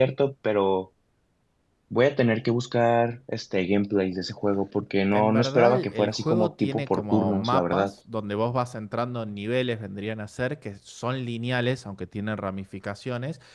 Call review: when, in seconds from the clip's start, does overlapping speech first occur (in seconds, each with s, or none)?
5.1 s